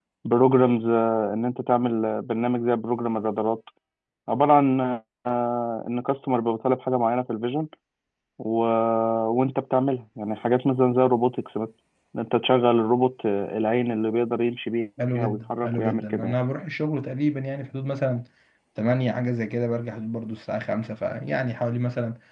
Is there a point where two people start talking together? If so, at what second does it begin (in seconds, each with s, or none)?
15.0 s